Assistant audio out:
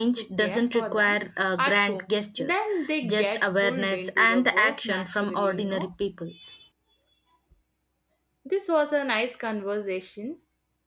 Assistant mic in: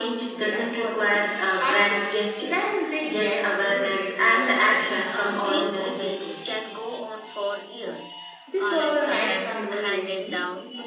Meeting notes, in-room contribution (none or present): present